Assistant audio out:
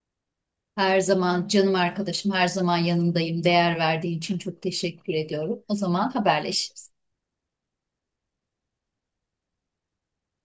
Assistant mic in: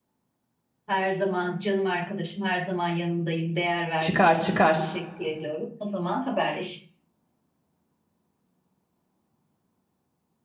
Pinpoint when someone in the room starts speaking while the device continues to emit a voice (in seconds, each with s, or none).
4.0 s